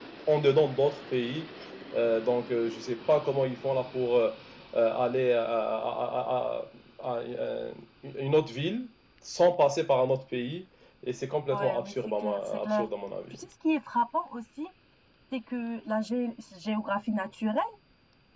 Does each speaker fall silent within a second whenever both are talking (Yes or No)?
No